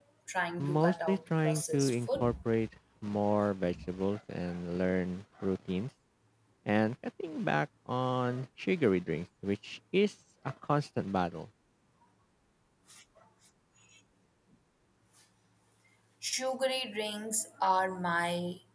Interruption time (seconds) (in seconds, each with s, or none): 0.6 s